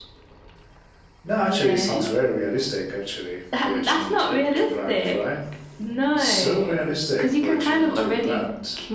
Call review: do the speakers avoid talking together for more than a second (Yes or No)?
No